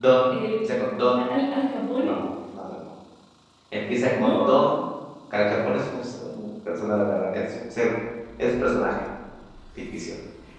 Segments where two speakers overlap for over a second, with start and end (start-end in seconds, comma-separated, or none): none